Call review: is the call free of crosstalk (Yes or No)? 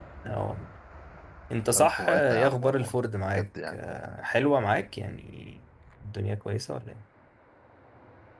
No